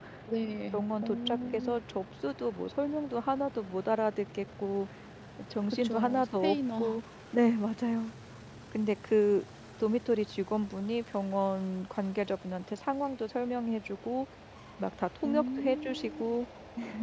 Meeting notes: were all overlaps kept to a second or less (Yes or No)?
No